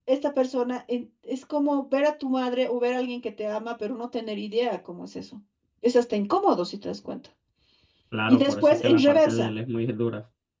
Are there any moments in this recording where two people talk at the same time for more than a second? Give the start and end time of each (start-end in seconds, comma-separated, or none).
8.3-9.5